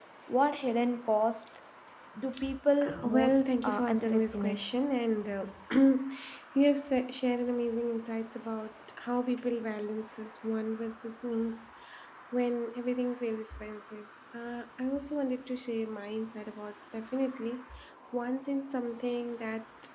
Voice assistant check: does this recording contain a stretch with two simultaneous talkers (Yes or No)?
Yes